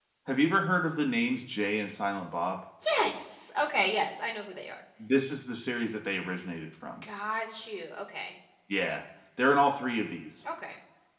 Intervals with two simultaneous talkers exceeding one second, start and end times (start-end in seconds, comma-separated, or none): none